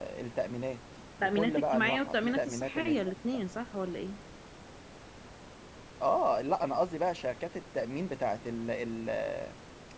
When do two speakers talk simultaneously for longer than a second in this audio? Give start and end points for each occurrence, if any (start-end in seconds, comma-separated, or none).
1.2-3.0